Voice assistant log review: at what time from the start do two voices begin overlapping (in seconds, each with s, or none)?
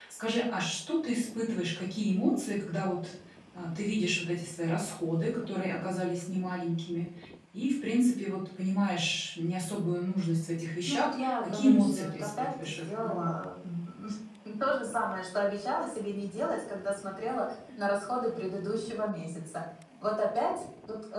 10.9 s